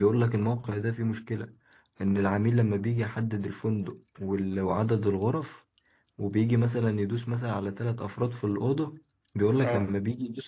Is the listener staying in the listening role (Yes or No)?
Yes